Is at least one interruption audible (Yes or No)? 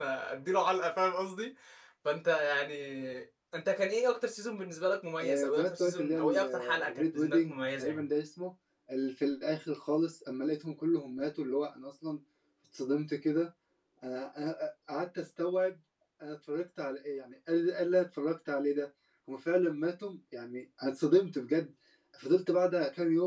Yes